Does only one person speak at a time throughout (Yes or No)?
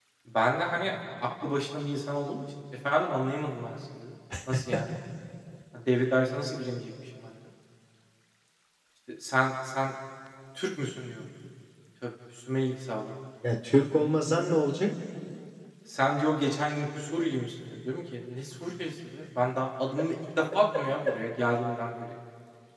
Yes